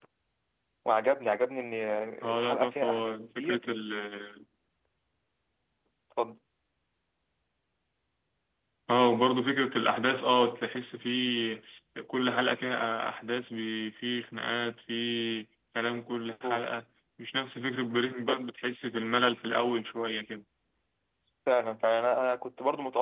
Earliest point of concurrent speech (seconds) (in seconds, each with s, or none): 2.4 s